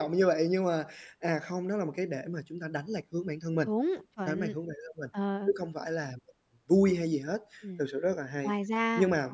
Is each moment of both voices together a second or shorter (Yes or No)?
Yes